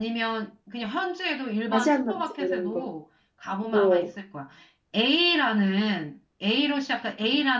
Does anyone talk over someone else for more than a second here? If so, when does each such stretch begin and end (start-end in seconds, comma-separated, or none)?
1.7-2.9